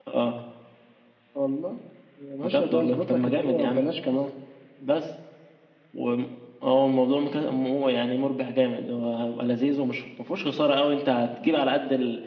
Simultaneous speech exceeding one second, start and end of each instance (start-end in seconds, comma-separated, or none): 2.4-3.8